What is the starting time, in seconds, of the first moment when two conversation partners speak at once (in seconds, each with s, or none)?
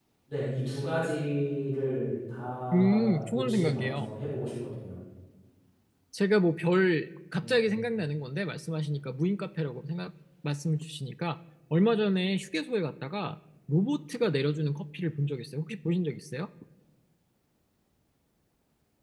2.7 s